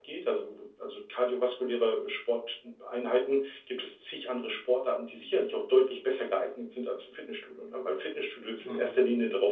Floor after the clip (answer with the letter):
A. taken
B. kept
B